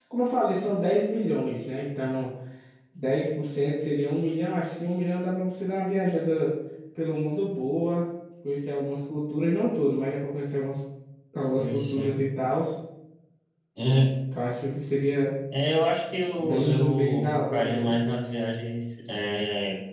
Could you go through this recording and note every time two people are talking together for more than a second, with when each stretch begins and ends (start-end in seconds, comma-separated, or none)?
16.4-18.0